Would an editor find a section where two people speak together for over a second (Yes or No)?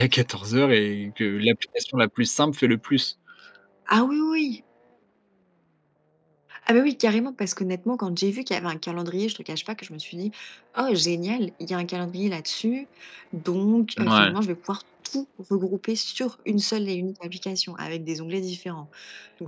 No